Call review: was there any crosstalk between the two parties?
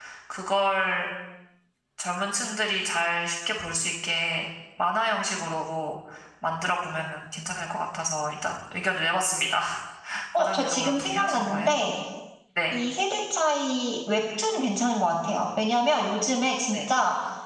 Yes, from 10.4 s

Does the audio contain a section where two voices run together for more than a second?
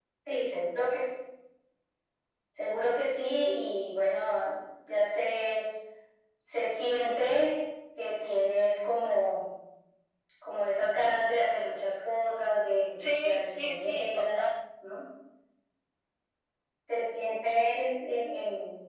Yes, from 12.9 s

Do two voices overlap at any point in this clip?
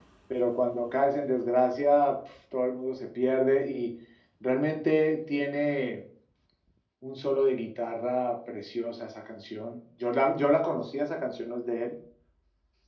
No

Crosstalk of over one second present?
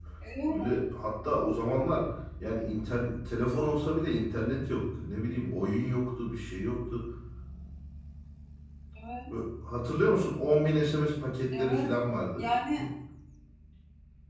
No

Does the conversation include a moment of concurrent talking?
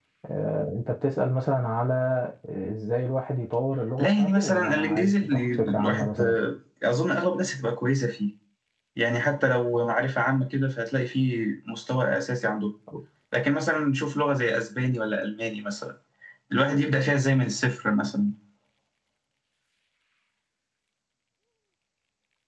Yes, from 4.0 s

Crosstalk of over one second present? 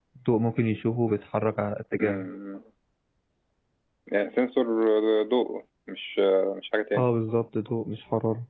No

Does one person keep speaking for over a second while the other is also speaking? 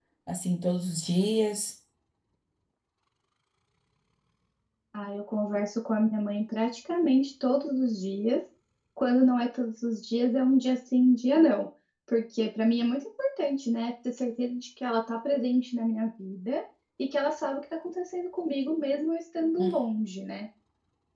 No

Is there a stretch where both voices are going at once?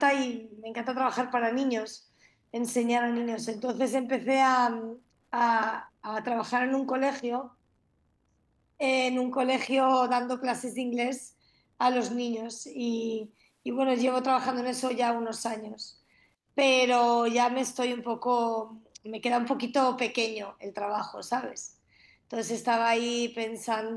No

